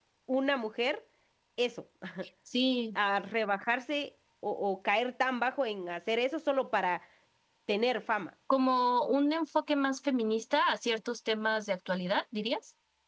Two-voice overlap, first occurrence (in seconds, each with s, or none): none